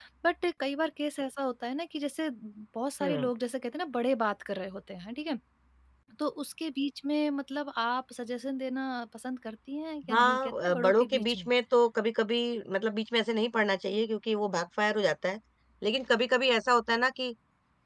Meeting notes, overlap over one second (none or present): present